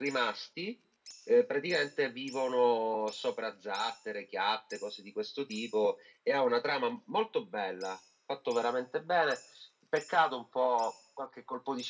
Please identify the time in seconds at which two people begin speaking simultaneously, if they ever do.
none

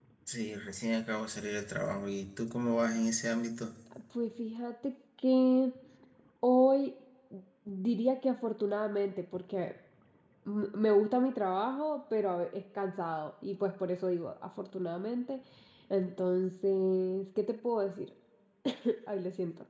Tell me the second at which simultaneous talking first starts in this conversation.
none

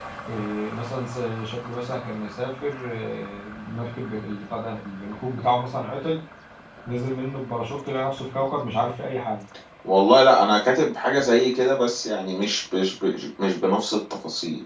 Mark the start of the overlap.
none

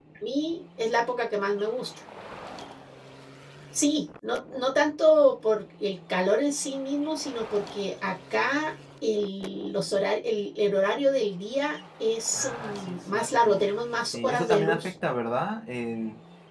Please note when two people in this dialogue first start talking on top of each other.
12.4 s

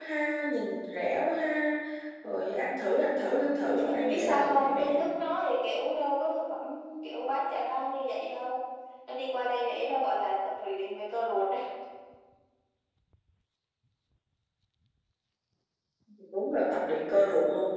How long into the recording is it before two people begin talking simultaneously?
3.3 s

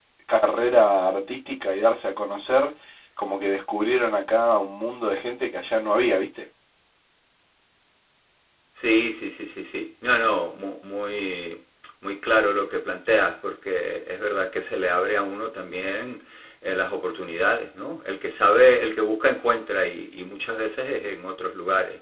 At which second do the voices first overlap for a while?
none

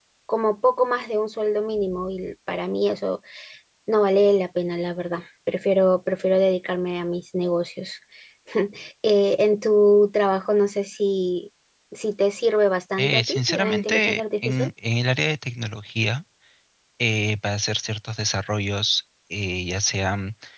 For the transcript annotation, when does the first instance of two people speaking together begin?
13.0 s

